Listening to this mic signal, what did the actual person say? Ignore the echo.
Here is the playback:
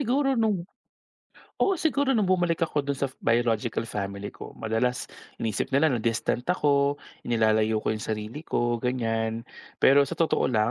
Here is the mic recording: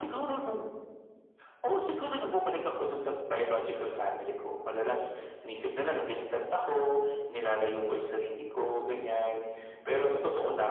none

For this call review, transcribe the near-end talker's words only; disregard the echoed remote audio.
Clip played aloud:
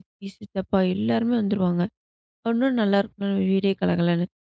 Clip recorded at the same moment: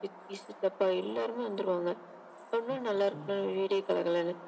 அச்சச்சோ!

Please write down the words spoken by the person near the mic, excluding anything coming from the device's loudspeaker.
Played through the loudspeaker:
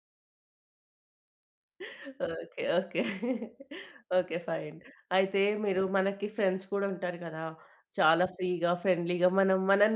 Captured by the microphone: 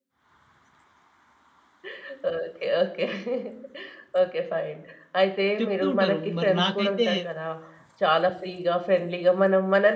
చెప్తూ ఉంటారు. మరి నాకైతే

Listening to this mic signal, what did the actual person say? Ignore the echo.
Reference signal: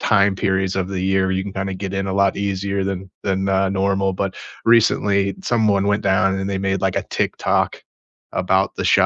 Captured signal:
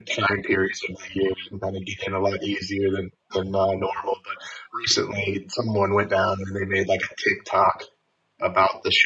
none

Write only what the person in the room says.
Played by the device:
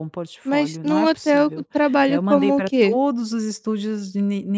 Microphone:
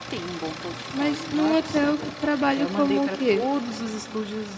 none

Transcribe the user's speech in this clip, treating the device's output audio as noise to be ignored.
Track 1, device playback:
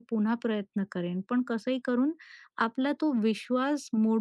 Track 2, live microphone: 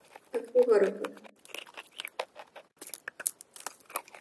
अगदी बरोबर.

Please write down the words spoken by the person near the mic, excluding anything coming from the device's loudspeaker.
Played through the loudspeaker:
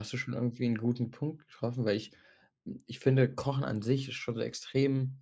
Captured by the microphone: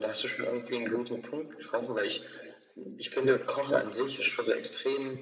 none

